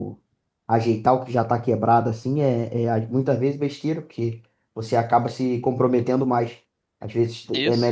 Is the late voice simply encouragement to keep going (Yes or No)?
Yes